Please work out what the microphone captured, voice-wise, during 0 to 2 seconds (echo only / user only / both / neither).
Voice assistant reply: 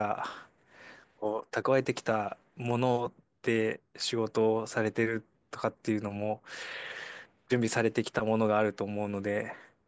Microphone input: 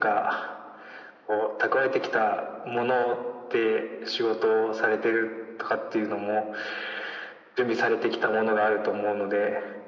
echo only